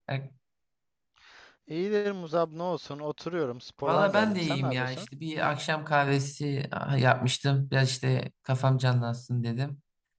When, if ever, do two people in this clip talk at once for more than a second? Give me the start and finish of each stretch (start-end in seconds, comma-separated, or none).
3.8-5.0